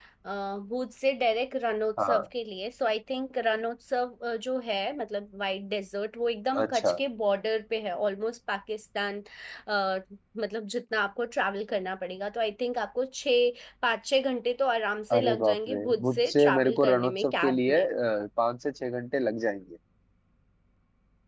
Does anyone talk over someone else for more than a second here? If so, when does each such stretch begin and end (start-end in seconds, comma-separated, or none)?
15.1-17.9